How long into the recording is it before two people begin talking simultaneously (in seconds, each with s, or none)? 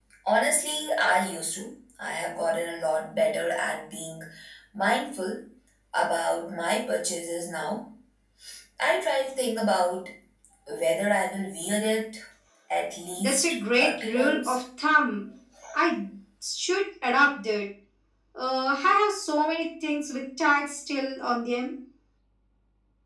13.2 s